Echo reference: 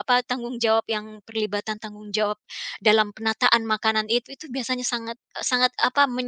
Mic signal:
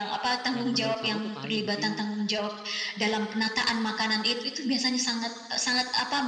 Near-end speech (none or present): present